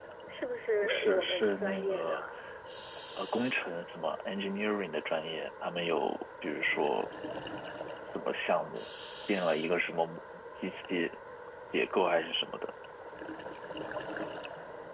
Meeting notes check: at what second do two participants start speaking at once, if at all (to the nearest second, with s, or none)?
1 s